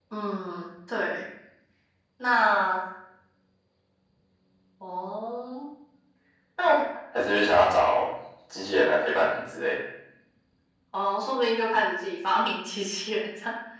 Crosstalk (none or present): none